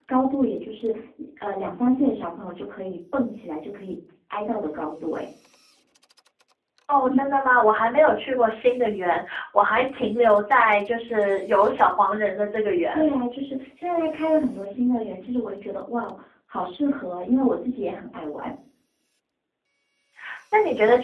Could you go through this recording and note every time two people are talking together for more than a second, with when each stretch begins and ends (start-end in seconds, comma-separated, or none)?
none